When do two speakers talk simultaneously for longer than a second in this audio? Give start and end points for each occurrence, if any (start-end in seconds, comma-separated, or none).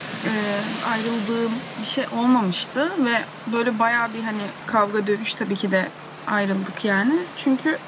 none